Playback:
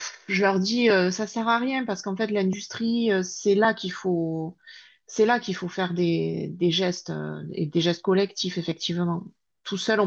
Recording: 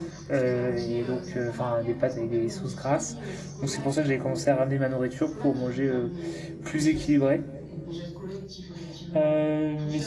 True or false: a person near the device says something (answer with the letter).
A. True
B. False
A